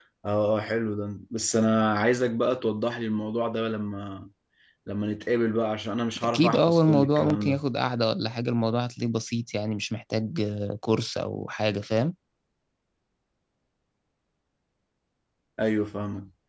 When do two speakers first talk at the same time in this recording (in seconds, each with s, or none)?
6.2 s